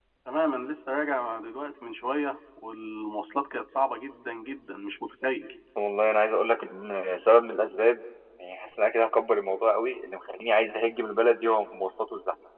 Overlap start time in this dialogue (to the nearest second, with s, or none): none